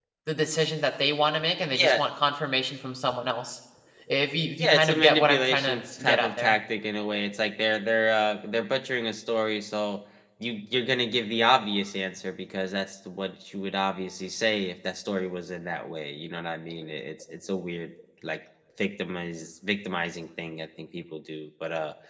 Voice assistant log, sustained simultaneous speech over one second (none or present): present